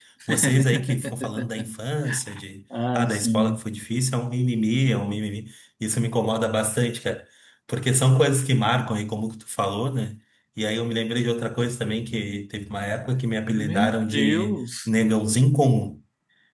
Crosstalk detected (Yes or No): Yes